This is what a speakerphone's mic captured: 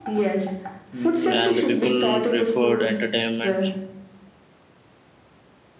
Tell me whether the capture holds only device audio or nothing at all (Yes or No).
No